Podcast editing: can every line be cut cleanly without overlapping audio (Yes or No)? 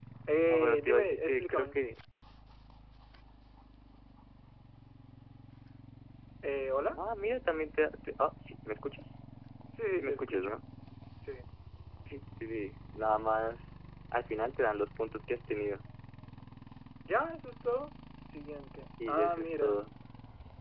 No